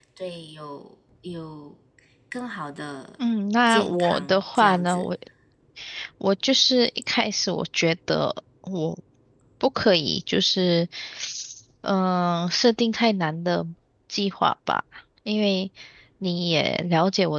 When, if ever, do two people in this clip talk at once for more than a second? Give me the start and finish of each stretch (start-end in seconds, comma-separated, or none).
3.7-5.1